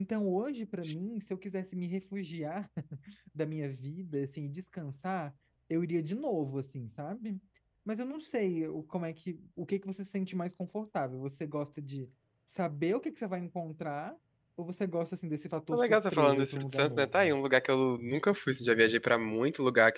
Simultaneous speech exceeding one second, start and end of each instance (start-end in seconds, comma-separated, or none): 15.7-17.3